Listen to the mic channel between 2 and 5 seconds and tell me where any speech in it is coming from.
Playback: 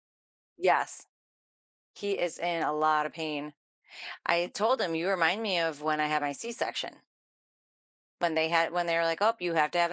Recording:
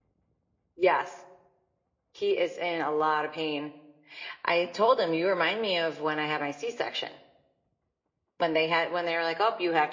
echo only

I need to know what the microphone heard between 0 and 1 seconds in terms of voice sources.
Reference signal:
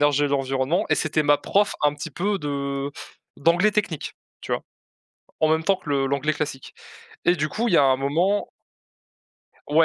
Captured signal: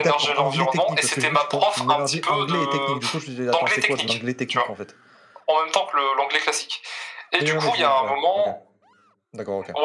both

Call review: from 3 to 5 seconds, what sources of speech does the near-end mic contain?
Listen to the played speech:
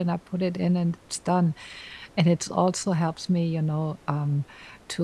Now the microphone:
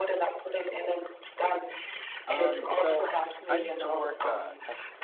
both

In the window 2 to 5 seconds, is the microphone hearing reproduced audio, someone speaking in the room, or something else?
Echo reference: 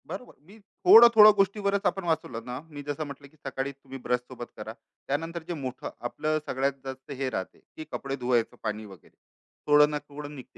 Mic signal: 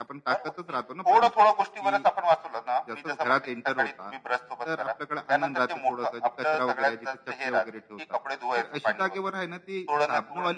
both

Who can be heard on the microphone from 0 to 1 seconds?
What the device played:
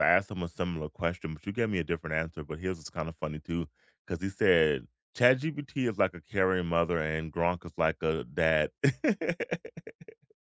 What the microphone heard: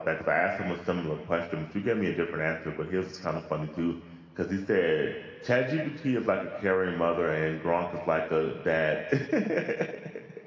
echo only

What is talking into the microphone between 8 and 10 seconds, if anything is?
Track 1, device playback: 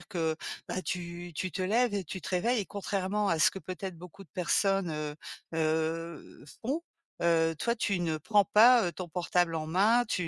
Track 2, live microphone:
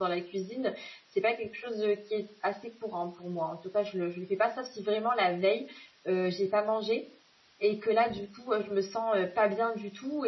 user only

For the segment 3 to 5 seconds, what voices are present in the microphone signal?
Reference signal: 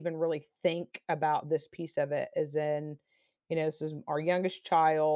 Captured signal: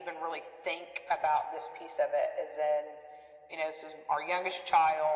echo only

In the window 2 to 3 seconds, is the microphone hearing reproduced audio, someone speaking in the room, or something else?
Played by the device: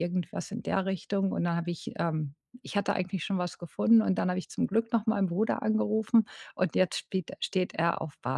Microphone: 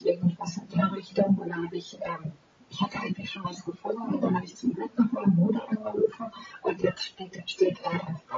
echo only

